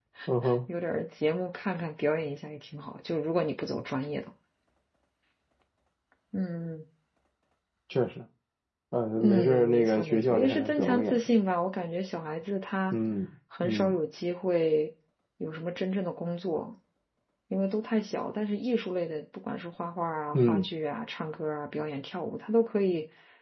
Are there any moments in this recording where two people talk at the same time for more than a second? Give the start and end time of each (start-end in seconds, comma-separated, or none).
9.2-11.2